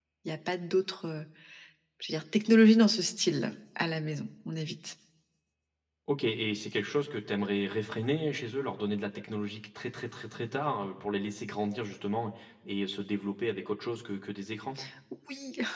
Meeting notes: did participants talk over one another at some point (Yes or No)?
No